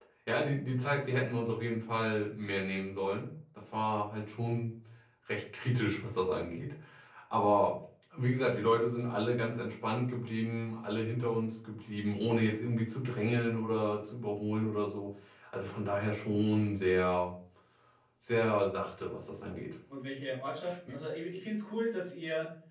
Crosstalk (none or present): none